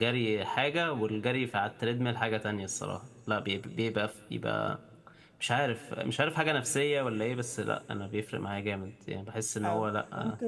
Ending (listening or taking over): taking over